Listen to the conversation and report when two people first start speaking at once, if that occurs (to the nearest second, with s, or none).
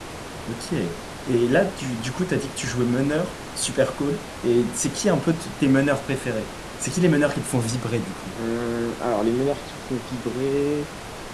none